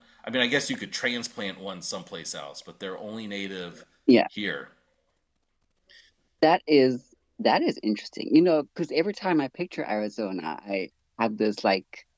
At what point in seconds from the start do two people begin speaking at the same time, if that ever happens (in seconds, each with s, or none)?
none